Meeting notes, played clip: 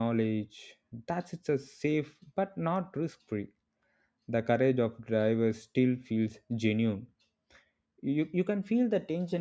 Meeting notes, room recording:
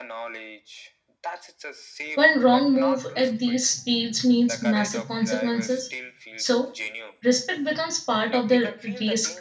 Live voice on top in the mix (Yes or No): Yes